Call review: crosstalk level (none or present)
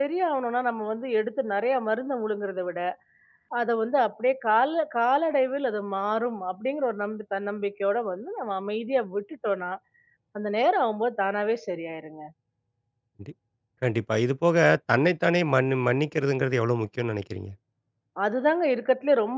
none